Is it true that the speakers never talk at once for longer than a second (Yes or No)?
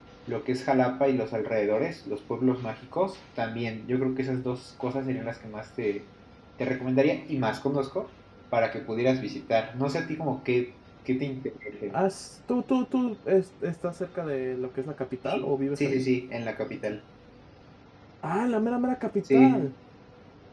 Yes